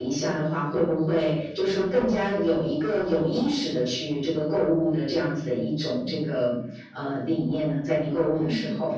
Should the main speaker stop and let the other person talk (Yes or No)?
Yes